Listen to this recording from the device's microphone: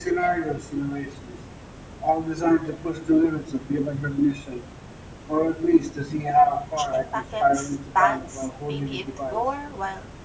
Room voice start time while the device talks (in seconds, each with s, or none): 6.8 s